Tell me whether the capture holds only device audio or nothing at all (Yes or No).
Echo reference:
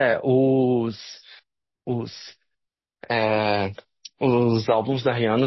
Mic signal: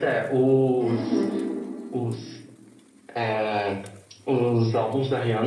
No